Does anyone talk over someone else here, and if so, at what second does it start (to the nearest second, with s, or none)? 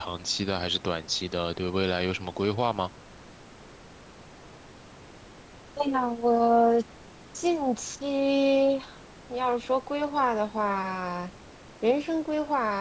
none